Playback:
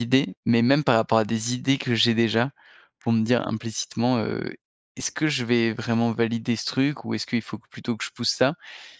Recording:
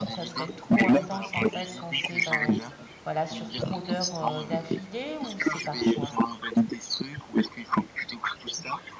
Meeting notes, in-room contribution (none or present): present